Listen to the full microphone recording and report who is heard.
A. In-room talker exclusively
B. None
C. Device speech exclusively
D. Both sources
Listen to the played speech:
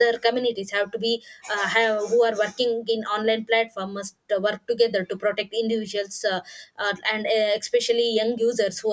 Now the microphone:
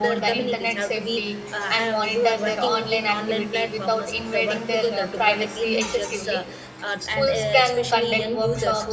D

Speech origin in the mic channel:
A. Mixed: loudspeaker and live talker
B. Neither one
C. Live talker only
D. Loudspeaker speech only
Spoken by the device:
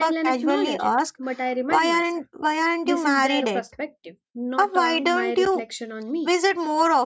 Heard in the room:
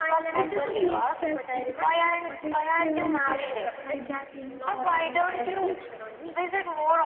A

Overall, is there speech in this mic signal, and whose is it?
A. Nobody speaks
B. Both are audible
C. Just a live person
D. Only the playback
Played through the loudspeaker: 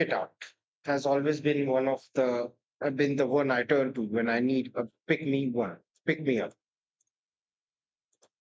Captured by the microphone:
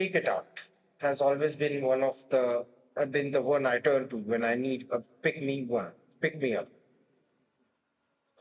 D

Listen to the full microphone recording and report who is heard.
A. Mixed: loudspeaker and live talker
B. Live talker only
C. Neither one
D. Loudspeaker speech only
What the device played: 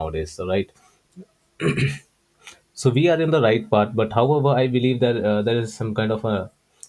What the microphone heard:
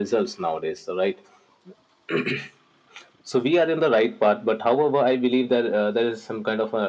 D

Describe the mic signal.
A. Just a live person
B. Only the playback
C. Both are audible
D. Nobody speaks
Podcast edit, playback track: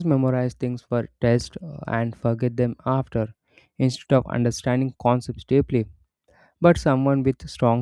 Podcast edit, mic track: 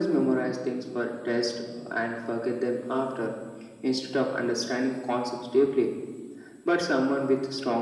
B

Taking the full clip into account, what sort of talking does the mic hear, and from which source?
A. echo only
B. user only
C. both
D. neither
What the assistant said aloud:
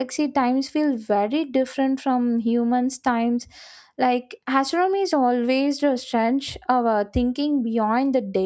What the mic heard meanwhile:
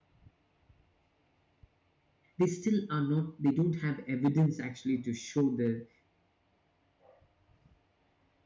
B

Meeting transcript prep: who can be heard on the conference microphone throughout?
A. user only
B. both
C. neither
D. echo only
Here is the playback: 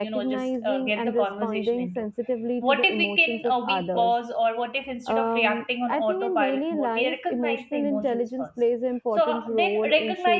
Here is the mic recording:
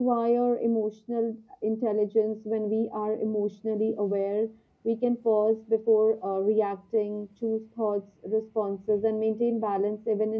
A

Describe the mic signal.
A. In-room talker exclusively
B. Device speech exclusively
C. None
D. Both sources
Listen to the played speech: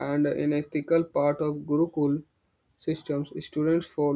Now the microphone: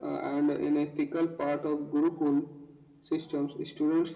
B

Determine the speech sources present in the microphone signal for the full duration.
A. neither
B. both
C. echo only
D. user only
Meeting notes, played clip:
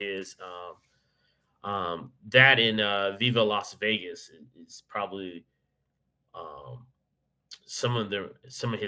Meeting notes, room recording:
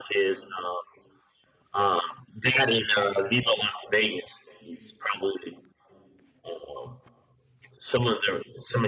C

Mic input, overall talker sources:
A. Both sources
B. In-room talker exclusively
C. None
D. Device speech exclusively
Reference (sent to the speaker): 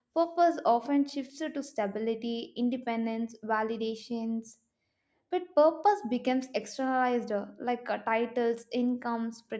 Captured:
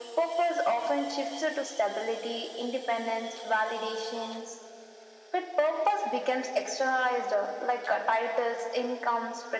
D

